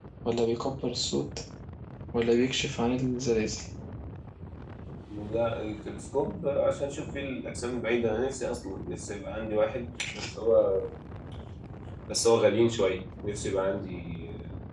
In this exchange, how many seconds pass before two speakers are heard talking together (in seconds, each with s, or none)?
none